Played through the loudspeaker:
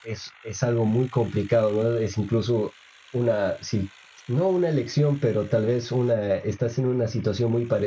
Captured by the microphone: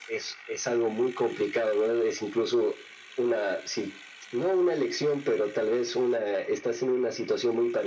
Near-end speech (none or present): none